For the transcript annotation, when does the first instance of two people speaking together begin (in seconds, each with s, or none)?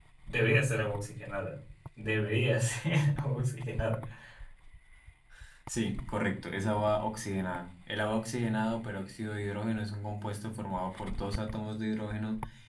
none